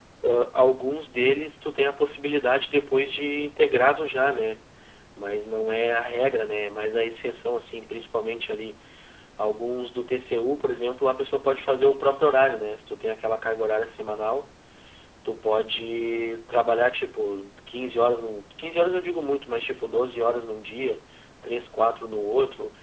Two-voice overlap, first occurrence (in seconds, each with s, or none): none